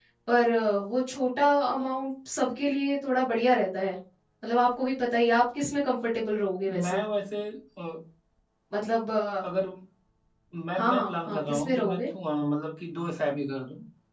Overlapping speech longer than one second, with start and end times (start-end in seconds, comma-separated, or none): 10.7-12.1